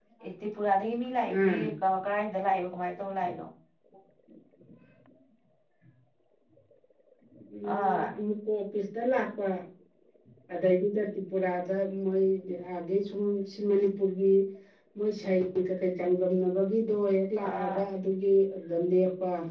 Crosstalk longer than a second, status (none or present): none